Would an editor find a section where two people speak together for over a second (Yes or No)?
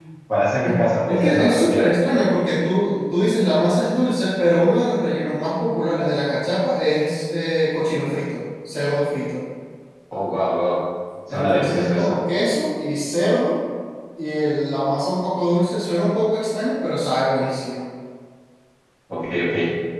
Yes